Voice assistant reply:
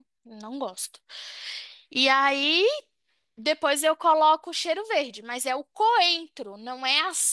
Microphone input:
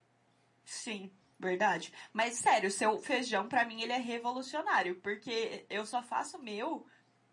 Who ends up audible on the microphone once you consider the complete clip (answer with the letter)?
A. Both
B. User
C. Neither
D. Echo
B